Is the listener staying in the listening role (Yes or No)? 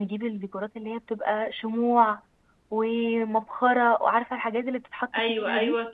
No